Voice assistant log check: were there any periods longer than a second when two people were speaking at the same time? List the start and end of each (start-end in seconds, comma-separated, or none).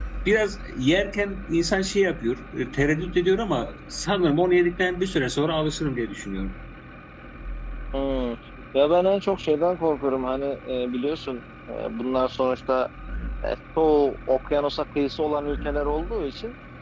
none